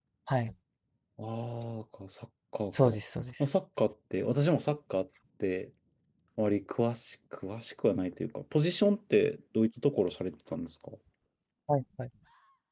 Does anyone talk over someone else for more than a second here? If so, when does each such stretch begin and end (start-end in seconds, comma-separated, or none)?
none